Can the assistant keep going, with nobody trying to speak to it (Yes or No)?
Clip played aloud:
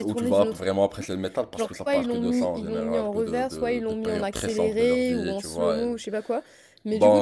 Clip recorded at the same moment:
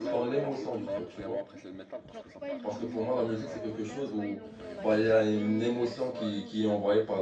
No